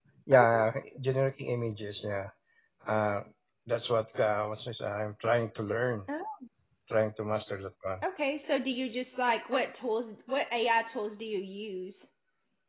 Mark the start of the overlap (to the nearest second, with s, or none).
none